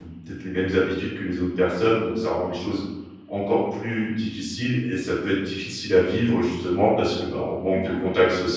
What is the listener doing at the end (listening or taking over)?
listening